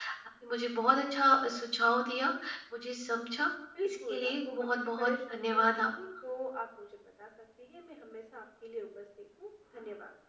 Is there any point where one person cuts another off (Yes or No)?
Yes